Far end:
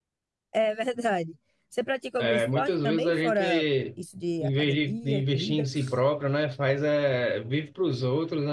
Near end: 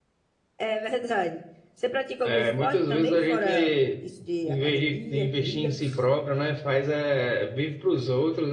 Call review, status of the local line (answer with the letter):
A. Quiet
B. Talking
A